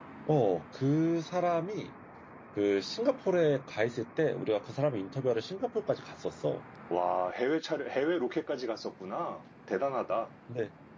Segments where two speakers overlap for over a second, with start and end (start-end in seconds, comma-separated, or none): none